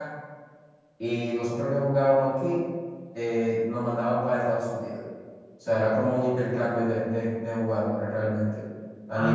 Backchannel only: Yes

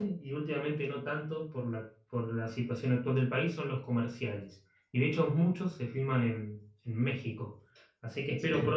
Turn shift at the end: No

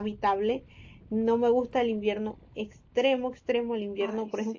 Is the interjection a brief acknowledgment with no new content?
Yes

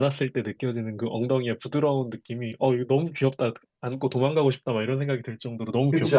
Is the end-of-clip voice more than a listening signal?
Yes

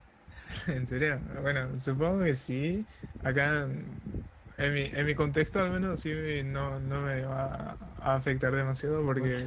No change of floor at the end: Yes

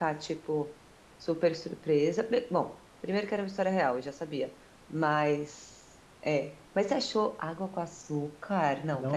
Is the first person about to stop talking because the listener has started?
Yes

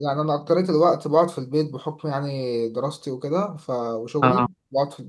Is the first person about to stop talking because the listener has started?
No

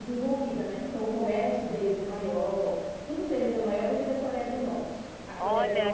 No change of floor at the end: No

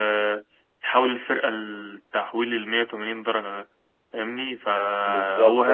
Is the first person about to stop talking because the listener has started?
No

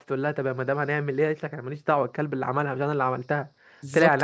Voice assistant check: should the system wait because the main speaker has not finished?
Yes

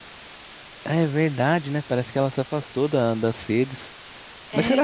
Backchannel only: No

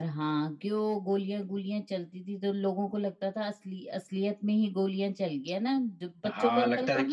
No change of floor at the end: No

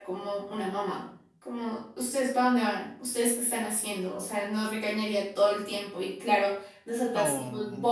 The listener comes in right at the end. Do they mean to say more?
No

